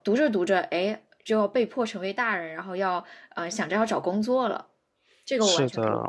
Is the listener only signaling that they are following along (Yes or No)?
No